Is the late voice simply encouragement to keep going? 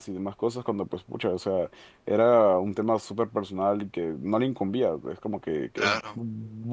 Yes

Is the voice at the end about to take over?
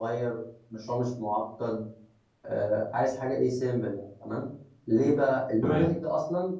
No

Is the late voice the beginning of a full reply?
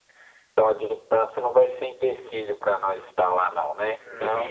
Yes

